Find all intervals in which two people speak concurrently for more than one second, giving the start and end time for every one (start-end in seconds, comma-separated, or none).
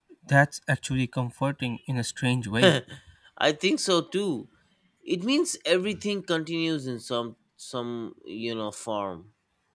none